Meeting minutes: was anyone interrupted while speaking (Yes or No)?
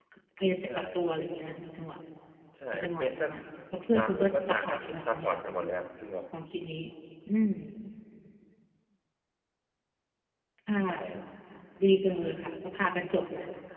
Yes